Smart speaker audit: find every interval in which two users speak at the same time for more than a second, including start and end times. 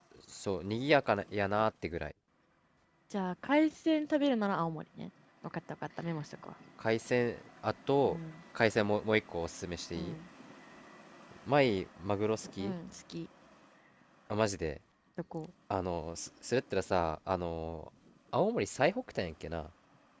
none

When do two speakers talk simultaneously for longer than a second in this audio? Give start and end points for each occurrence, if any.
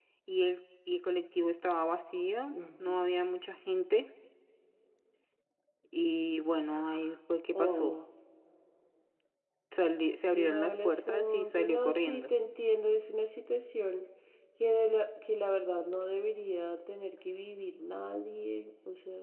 10.3-12.3

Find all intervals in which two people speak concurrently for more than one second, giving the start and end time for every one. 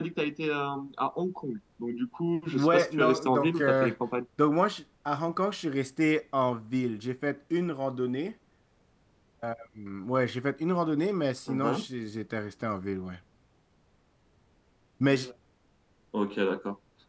2.5-3.9

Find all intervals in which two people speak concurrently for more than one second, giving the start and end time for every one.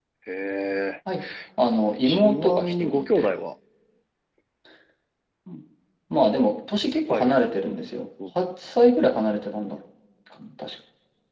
2.0-3.3

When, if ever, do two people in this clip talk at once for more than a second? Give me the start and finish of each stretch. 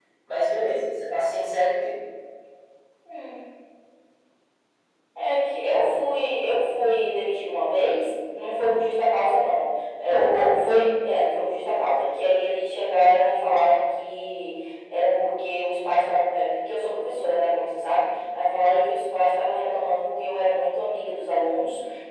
none

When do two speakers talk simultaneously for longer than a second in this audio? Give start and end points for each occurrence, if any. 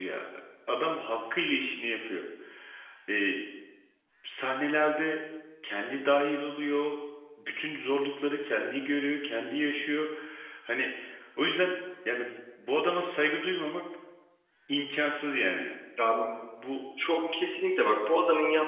none

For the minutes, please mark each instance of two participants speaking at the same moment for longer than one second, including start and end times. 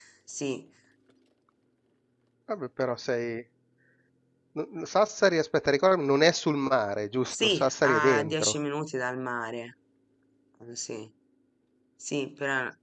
7.3-8.6

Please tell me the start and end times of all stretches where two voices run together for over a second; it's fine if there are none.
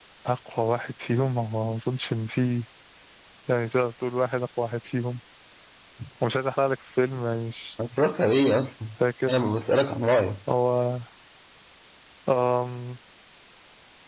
none

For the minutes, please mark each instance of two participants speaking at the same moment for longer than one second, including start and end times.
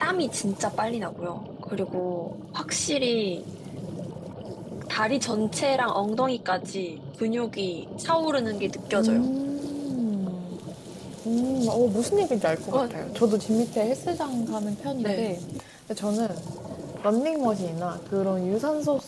none

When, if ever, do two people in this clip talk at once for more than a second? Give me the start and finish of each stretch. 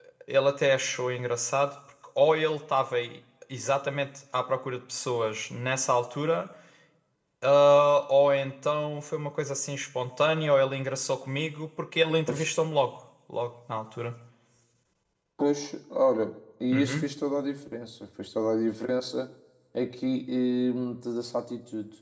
none

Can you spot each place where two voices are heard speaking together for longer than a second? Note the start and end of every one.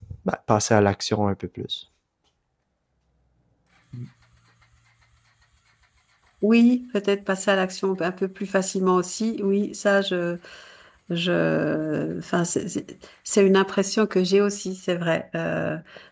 none

